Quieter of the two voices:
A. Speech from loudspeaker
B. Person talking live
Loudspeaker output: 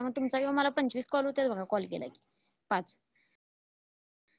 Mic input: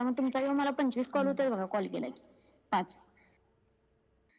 B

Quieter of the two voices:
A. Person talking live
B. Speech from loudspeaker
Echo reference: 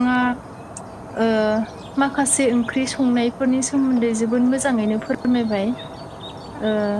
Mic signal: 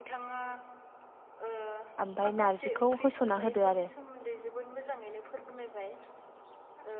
B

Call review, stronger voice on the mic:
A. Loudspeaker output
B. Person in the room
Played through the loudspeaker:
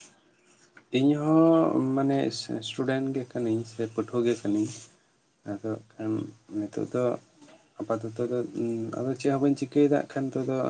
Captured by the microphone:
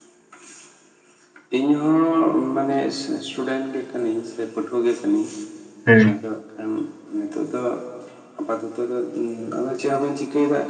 B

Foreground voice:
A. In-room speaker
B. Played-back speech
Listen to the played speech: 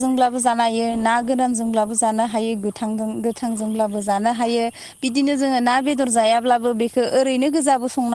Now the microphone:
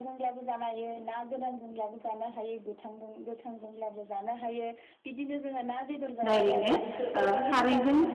A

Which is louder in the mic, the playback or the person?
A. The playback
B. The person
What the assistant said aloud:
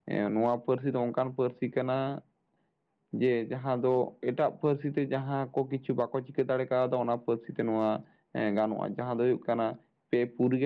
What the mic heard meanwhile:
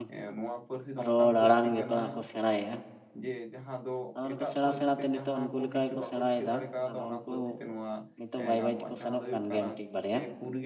B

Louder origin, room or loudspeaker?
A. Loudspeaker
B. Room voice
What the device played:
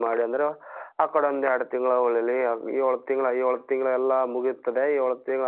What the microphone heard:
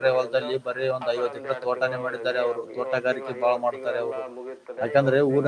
B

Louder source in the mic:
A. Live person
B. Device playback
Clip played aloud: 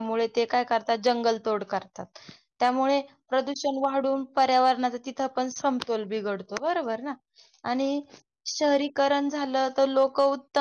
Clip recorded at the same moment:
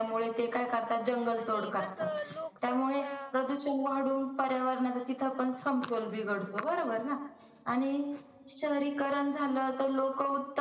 B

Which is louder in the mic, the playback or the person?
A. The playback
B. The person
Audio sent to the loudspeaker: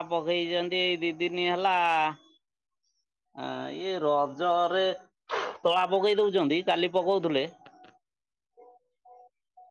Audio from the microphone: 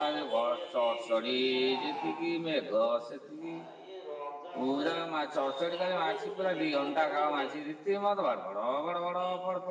B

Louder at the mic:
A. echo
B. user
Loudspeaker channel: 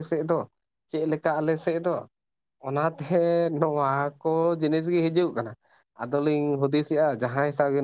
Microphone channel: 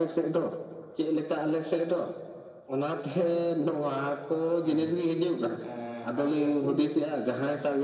A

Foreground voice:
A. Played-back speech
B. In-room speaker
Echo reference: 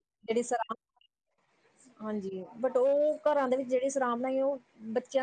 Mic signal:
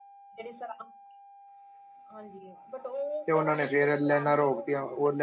B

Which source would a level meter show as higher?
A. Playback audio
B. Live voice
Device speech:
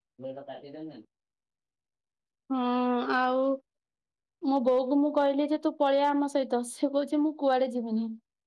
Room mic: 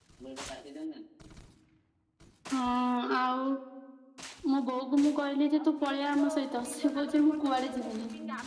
A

